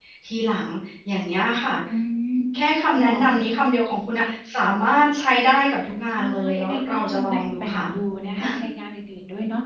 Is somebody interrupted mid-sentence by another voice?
Yes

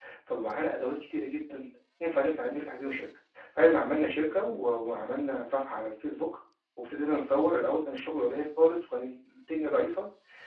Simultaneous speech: No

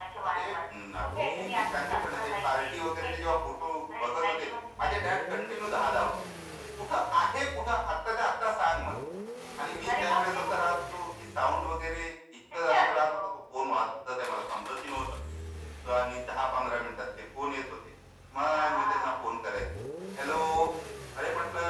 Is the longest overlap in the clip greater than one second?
Yes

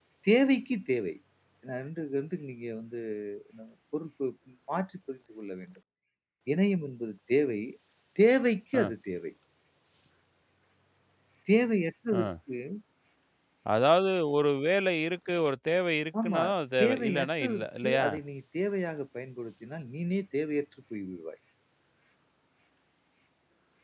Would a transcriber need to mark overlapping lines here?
Yes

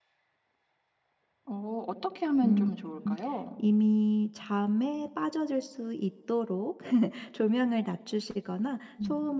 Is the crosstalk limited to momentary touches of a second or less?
Yes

